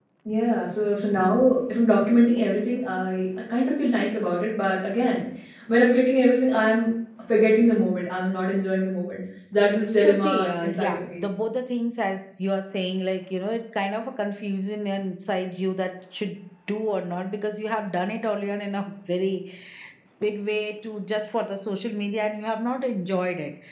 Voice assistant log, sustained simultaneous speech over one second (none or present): present